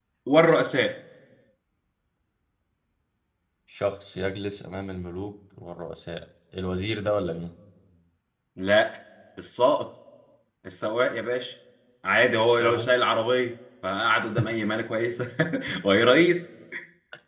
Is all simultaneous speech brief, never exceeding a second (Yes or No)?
Yes